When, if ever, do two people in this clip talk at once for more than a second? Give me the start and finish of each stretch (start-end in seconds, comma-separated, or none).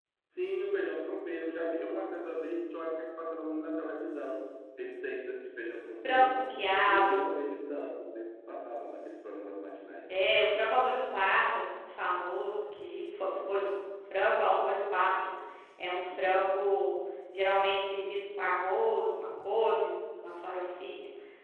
none